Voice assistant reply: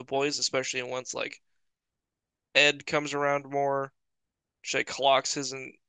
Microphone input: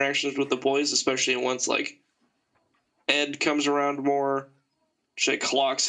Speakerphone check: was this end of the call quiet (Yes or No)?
Yes